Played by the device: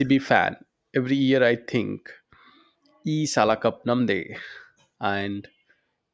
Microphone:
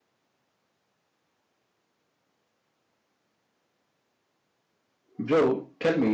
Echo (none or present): none